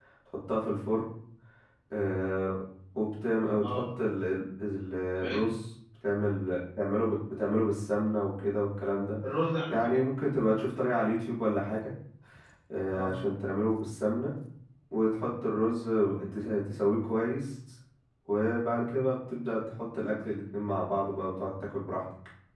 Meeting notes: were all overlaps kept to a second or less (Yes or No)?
Yes